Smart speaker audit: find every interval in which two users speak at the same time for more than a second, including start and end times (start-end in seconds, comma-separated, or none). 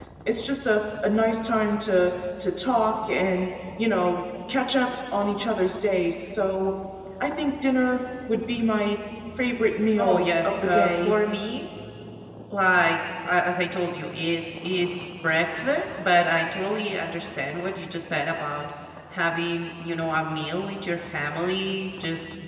9.9-11.1